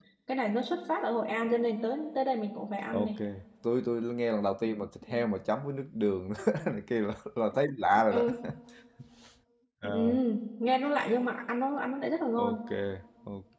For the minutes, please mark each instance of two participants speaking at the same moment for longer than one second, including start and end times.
none

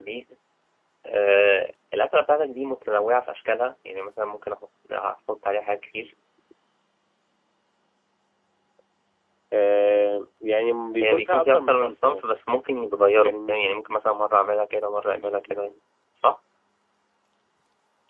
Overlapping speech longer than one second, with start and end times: 11.0-12.2

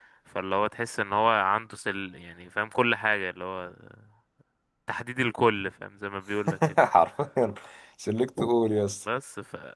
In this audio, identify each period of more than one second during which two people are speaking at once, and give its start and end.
none

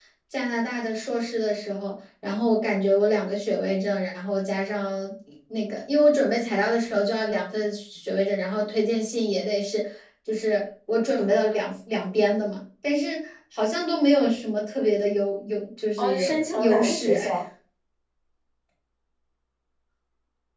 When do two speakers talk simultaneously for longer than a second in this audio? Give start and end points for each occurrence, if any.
16.0-17.4

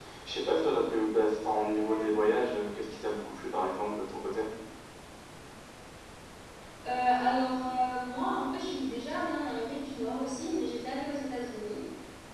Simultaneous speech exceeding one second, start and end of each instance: none

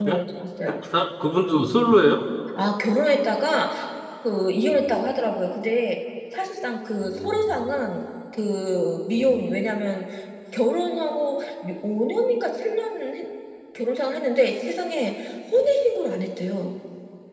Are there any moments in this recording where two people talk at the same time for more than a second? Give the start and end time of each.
none

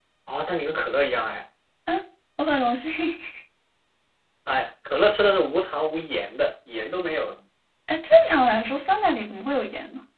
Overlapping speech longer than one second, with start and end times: none

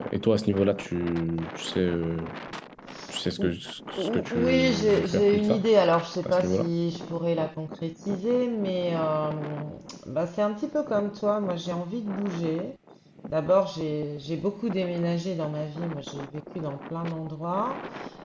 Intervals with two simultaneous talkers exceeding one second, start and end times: 4.0-5.6

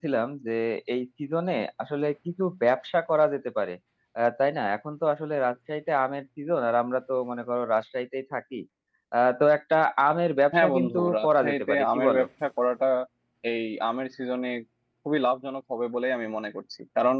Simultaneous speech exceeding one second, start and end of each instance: 10.5-12.2

